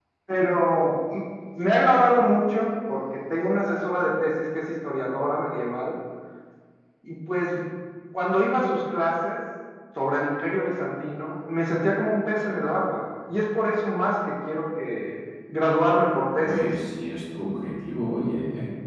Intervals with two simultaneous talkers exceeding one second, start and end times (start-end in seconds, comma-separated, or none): none